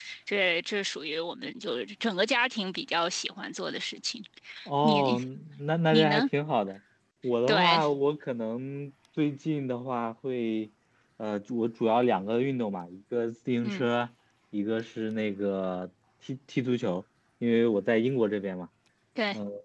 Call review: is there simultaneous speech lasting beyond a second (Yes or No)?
No